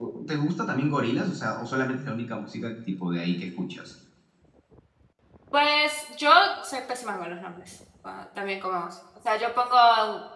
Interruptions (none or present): none